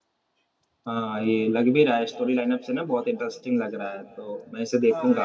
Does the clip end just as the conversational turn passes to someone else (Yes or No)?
Yes